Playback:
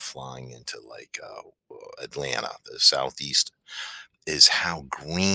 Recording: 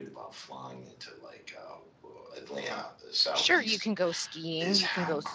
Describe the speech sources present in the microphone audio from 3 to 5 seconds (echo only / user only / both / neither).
both